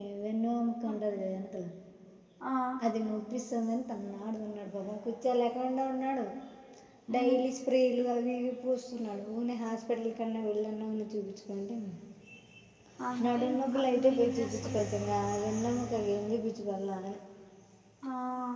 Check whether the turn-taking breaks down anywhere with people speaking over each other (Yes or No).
Yes